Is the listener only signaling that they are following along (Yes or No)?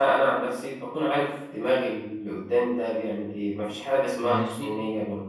Yes